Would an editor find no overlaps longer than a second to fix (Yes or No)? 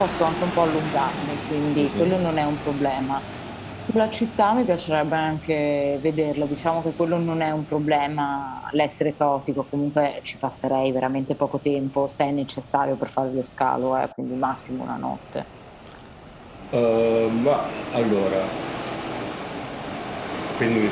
Yes